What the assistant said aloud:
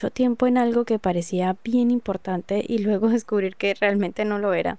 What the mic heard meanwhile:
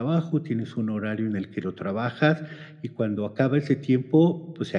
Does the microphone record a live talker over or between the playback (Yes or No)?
Yes